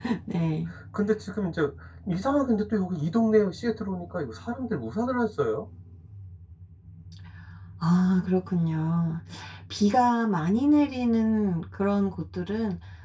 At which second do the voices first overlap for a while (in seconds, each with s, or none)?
none